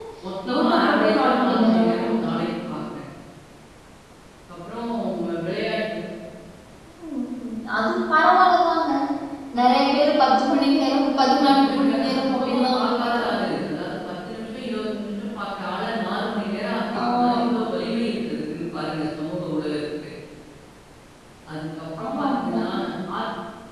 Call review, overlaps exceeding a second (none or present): present